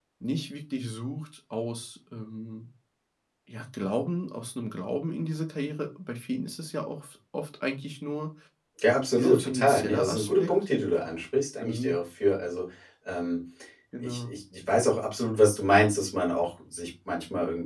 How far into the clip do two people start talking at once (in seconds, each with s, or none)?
9.2 s